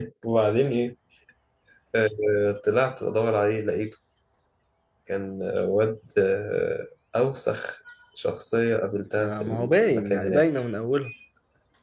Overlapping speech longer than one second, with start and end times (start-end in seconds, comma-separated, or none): 9.2-10.4